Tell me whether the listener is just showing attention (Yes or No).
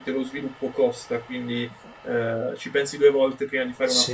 No